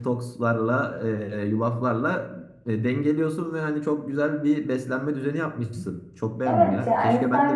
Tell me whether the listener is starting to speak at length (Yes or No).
Yes